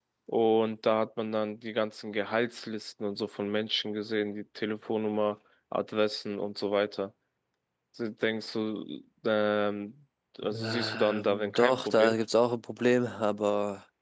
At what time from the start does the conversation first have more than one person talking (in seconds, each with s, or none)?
10.4 s